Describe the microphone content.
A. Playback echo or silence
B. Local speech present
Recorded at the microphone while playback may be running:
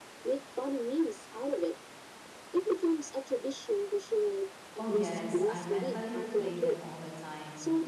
B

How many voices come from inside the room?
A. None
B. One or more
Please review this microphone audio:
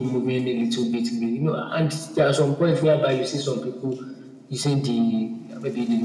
A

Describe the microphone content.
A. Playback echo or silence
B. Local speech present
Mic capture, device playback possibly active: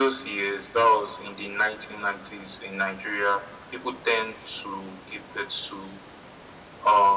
A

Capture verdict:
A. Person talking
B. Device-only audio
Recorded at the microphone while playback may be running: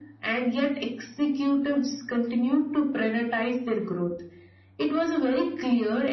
B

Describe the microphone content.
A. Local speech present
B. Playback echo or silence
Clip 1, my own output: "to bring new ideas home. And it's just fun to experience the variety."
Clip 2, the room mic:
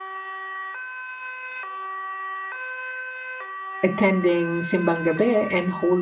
A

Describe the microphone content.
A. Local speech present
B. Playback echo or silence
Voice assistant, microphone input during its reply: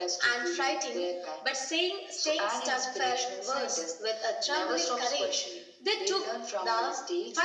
B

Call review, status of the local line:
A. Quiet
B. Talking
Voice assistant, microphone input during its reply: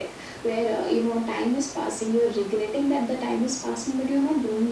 A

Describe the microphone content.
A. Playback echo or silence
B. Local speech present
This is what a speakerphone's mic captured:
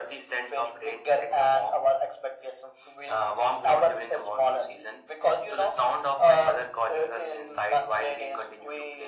A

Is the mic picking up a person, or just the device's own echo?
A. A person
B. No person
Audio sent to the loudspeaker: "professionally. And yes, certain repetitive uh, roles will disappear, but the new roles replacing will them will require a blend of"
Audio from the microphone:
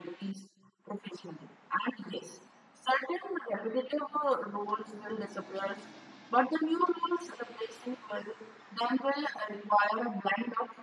B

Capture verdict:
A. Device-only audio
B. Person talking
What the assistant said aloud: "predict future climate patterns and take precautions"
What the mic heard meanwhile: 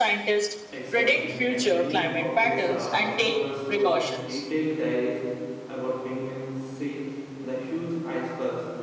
B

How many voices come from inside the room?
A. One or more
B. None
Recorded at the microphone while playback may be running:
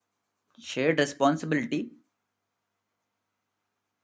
A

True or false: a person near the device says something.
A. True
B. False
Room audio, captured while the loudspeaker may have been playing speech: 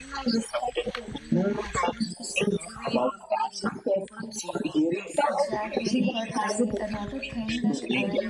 A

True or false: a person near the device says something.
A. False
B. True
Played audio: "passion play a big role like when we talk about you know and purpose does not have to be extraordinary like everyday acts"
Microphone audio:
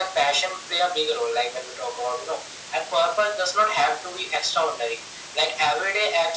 A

